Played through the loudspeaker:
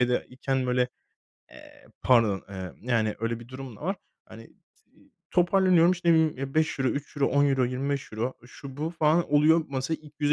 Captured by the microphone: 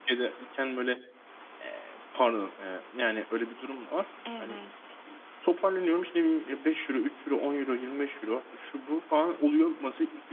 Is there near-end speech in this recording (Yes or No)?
Yes